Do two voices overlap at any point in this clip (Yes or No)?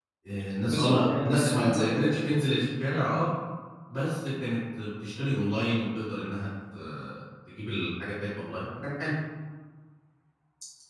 Yes